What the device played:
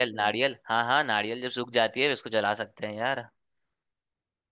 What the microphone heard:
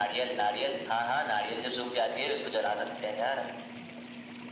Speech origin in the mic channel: echo only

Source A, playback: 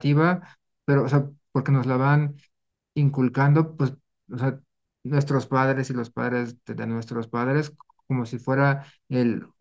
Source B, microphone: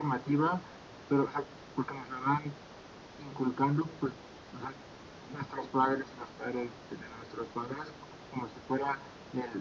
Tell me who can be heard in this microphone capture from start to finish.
echo only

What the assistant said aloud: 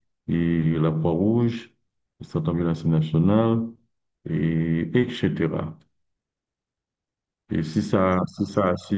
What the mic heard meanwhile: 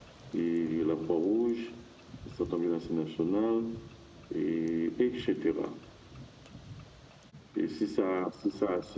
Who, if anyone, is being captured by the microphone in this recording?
echo only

